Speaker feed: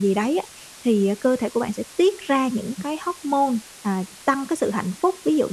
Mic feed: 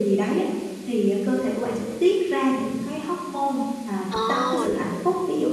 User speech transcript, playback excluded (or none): Ờ. Mình hiểu nè.